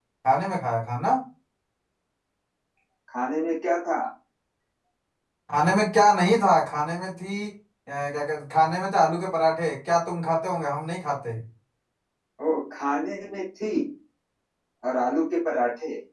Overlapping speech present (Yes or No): No